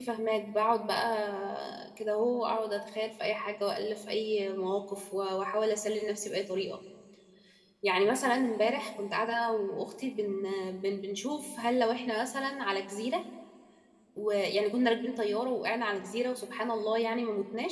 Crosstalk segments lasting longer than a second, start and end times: none

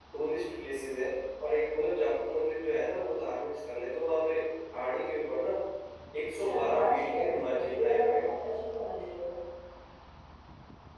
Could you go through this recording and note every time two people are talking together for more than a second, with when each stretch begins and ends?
6.4-8.3

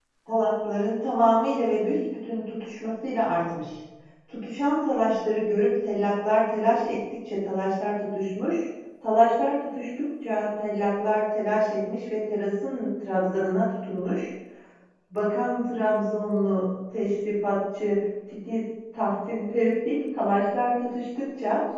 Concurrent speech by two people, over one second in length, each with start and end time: none

